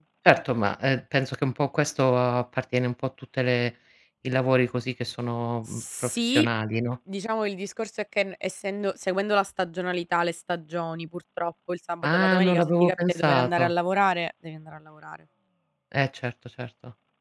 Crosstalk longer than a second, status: present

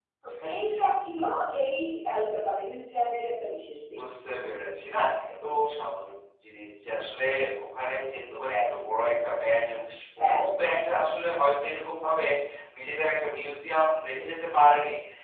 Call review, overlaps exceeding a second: none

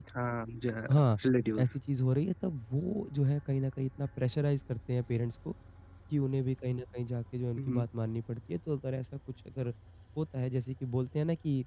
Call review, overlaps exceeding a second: none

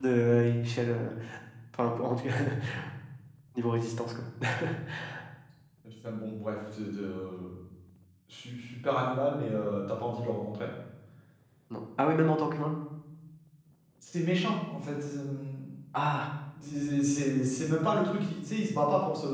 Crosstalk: none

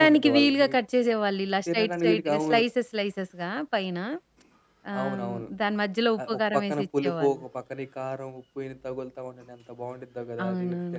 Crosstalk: present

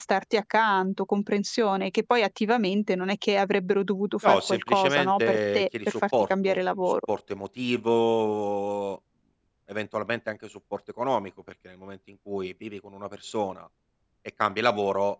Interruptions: present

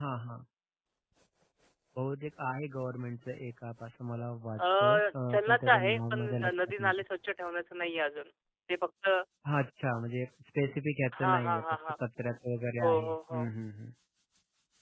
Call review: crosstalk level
present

